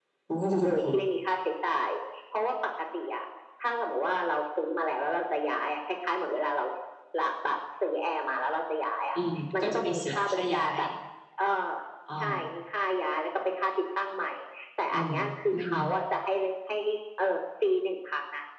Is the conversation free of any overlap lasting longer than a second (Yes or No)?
No